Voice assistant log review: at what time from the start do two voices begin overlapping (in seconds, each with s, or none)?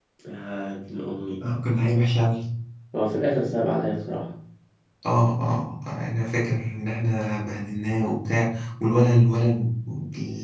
none